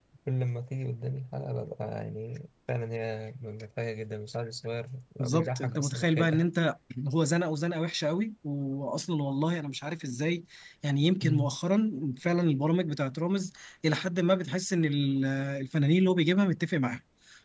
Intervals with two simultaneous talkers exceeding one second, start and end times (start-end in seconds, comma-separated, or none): 5.2-6.5